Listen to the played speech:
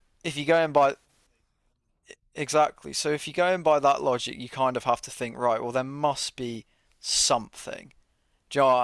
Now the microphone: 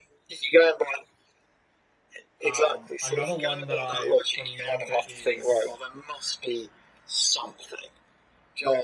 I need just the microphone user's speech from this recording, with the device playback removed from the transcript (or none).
Um, another one that I remember is